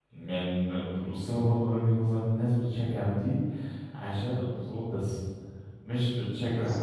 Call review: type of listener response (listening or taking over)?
listening